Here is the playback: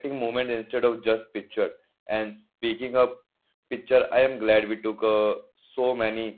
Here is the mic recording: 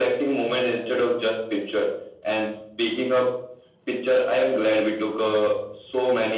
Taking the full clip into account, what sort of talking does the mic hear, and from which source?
echo only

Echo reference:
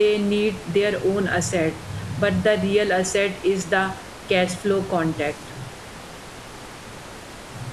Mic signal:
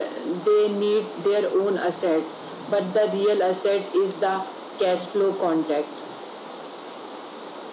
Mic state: echo only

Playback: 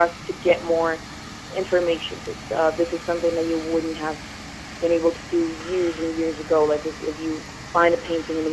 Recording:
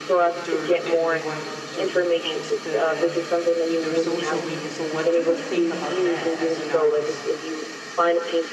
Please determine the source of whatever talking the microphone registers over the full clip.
both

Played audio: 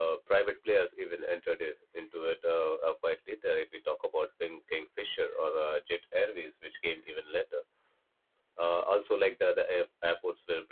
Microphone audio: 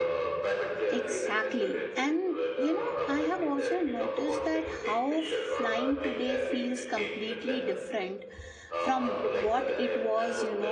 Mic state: both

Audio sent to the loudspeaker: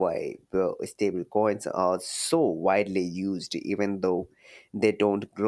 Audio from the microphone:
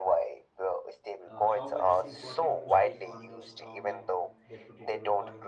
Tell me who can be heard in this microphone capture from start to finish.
both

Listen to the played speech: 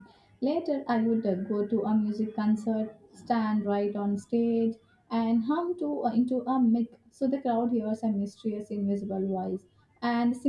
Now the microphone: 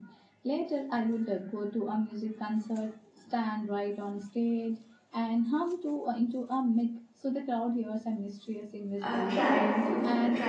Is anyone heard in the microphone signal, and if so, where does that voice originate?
both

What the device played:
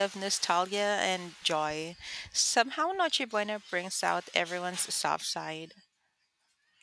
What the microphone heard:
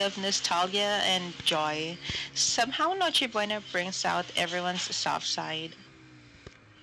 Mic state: echo only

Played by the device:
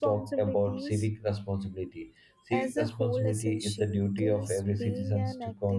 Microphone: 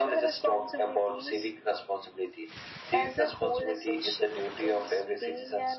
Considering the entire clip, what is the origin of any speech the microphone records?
echo only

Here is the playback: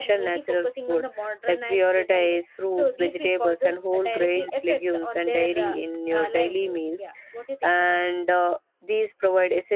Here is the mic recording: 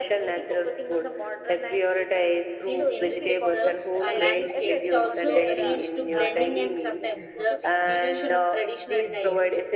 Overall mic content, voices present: both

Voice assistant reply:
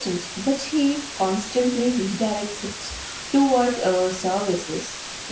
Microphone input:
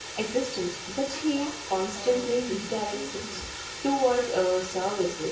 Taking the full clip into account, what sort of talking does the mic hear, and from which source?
both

